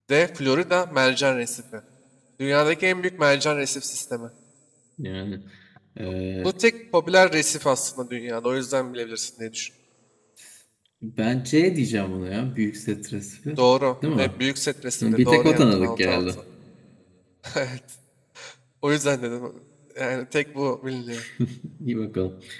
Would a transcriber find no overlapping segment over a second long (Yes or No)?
No